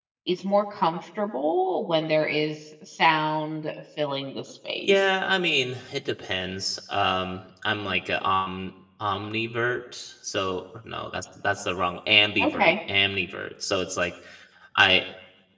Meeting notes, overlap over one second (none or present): none